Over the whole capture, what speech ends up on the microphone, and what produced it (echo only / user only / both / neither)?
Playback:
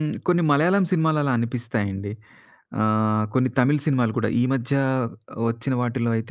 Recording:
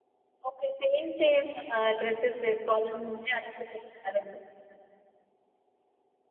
user only